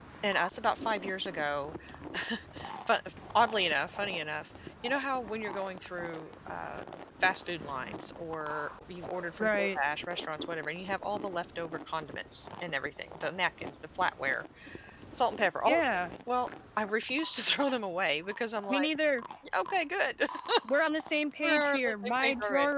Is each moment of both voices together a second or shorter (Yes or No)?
No